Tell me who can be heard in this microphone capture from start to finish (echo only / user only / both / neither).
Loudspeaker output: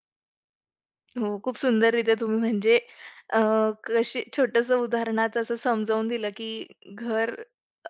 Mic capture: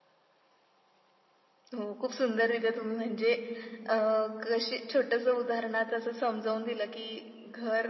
echo only